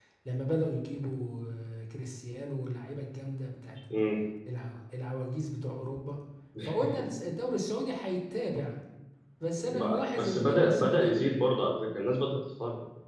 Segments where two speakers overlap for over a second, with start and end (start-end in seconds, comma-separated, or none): 9.7-11.4